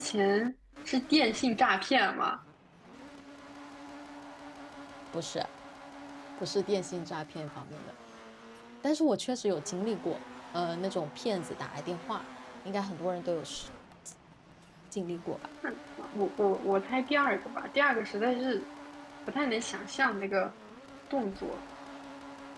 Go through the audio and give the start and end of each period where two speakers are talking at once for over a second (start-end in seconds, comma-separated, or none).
none